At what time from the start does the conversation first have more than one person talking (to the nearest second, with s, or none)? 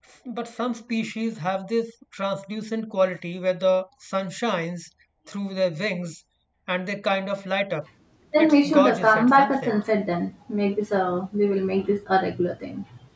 8 s